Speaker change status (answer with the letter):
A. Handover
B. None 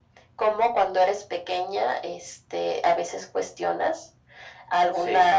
B